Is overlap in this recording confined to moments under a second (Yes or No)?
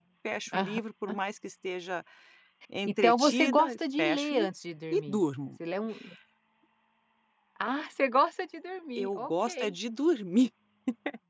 No